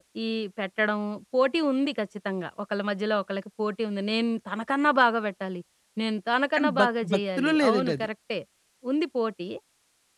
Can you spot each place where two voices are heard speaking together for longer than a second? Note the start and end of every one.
6.6-8.1

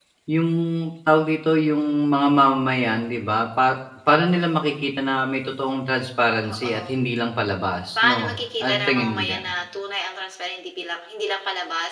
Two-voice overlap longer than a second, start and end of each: 8.0-9.5

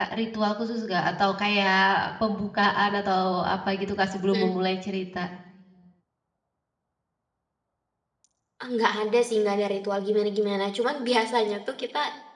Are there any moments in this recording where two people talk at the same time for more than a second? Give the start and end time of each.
none

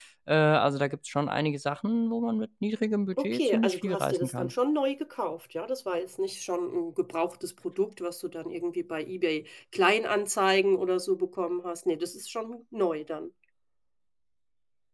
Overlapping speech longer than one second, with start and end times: 3.2-4.5

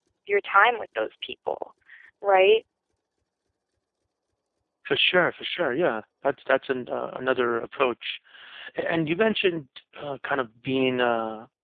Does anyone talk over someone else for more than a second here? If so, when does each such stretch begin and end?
none

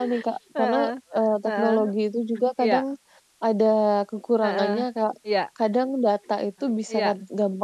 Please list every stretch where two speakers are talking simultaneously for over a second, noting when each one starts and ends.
none

